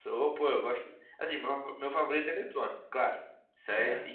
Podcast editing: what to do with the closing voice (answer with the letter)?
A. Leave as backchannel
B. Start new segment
A